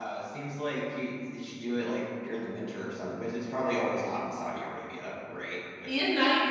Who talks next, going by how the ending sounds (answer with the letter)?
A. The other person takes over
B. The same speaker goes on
A